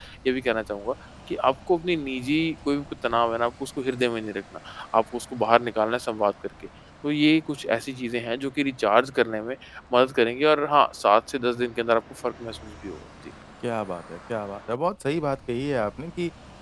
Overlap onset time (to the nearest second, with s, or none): none